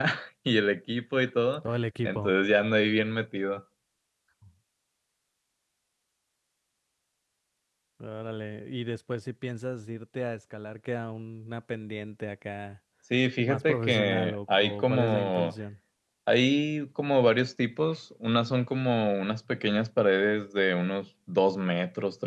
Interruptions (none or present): present